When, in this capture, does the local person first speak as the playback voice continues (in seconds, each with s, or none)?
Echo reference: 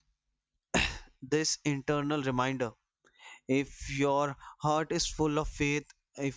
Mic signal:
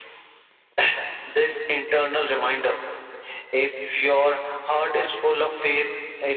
none